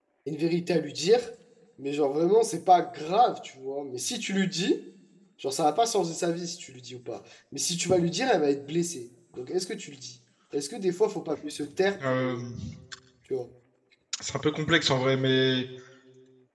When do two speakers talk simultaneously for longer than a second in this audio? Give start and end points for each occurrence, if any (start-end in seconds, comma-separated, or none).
none